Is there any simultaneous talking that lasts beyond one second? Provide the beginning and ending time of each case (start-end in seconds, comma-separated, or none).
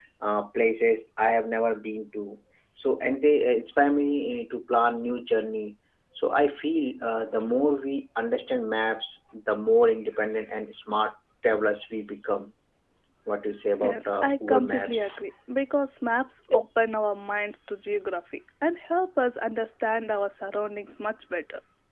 13.8-15.0